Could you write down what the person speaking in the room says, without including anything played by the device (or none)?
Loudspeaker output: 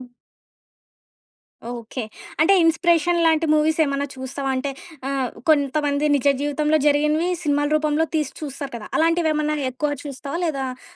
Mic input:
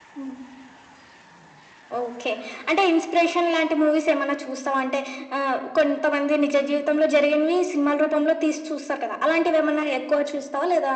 none